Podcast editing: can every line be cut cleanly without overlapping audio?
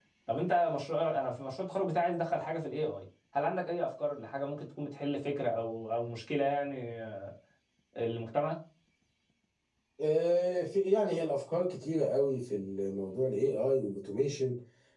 Yes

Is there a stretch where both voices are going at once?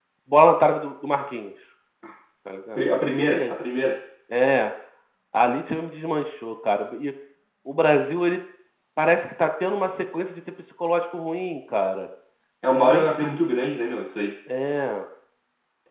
Yes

